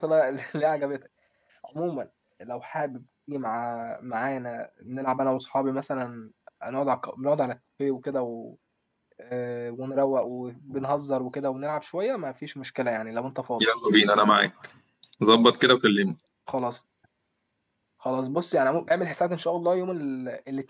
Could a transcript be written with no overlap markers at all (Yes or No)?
Yes